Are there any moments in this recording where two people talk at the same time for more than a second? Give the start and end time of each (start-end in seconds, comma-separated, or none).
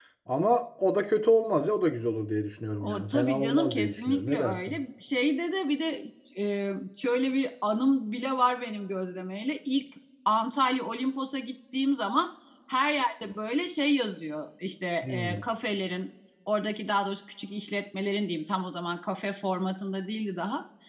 2.8-4.8